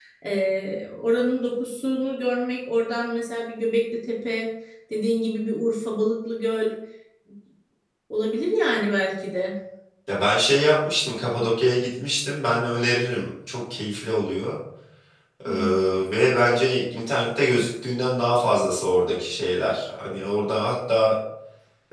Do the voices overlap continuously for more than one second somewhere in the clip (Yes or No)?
No